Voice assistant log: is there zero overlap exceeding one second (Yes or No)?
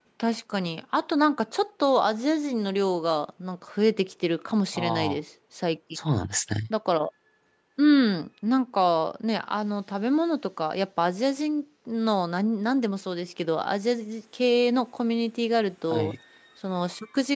Yes